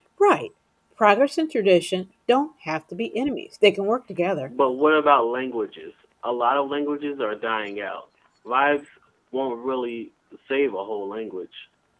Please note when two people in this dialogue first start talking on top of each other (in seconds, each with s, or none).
none